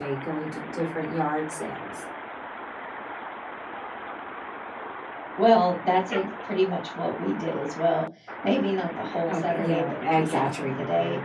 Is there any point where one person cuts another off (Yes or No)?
Yes